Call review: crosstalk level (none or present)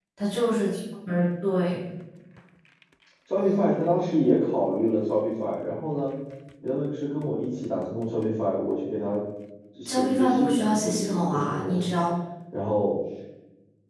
present